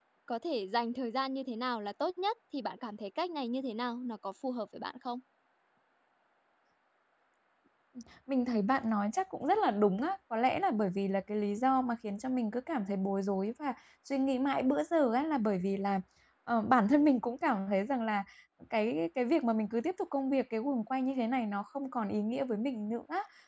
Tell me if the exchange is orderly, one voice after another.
Yes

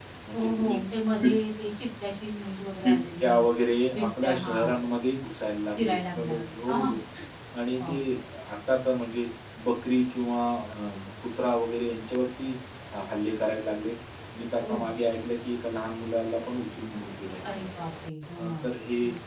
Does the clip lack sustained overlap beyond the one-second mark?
No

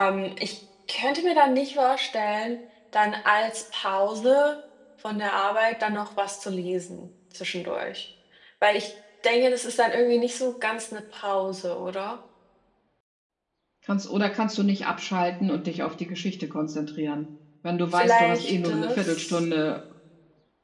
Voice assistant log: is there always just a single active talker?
No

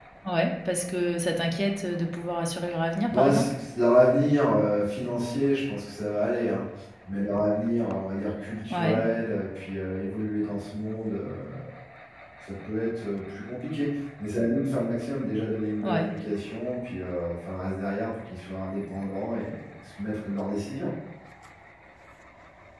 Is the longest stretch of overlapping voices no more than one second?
Yes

